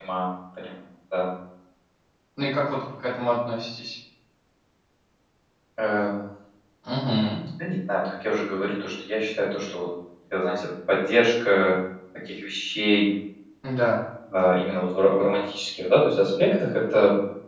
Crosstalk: none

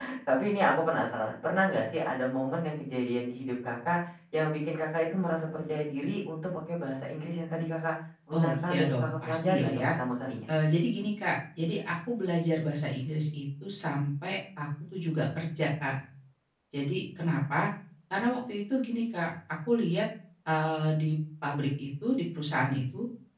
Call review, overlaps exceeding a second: present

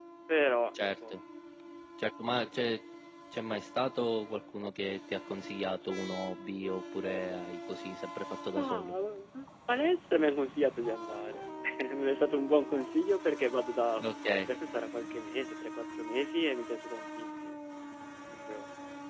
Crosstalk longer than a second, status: none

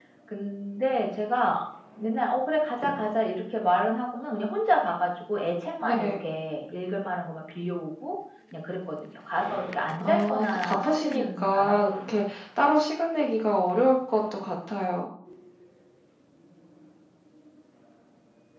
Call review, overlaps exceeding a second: present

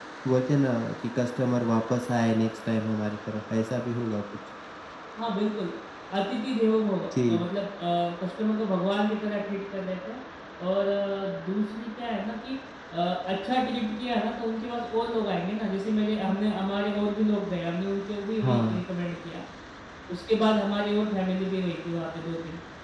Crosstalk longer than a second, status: none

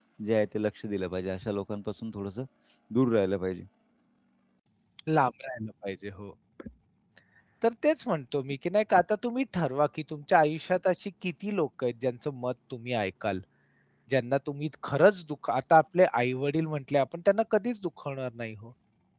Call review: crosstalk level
none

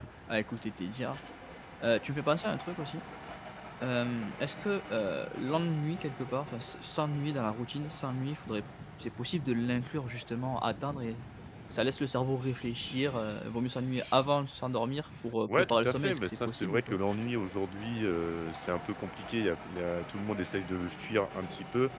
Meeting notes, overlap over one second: present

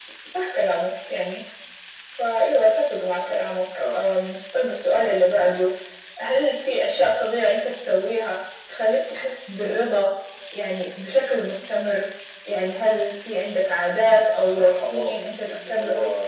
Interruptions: present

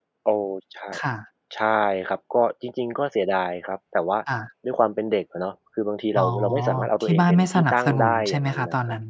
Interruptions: present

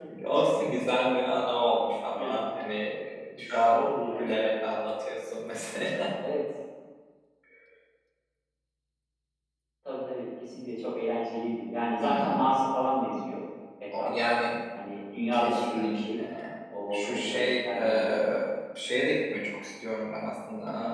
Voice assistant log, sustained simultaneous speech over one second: present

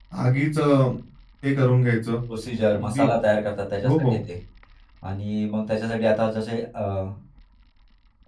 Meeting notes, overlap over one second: none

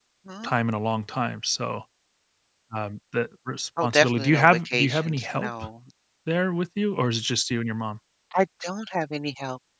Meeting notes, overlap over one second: present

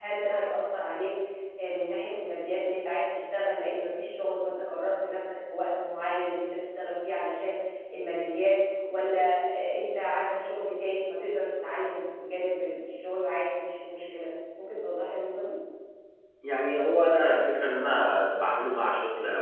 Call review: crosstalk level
none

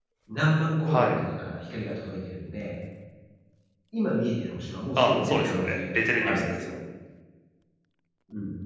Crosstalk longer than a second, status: present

